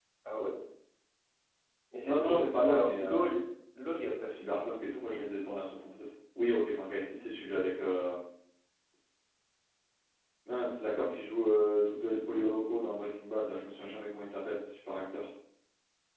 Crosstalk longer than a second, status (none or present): present